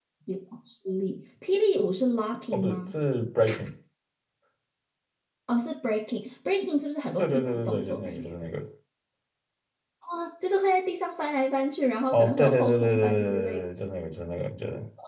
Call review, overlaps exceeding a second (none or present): present